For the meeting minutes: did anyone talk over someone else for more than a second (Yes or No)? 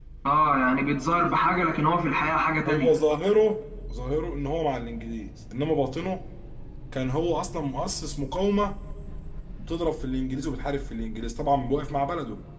No